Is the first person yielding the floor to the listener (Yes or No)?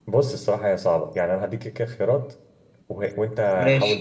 No